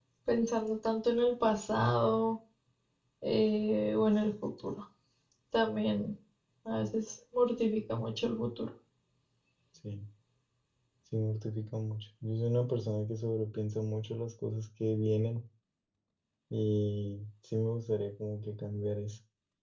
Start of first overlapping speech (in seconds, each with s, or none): none